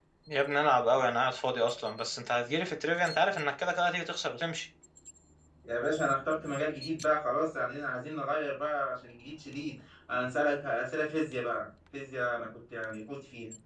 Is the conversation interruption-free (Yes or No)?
Yes